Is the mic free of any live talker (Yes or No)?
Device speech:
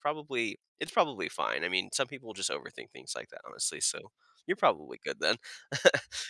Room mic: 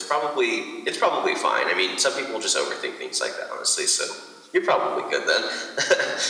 Yes